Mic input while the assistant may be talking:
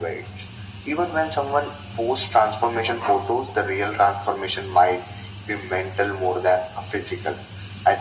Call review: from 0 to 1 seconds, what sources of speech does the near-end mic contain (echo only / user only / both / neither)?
echo only